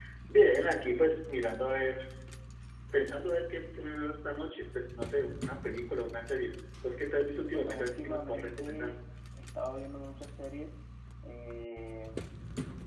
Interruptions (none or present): present